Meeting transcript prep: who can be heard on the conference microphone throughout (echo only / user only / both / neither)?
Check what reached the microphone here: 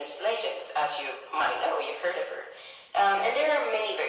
echo only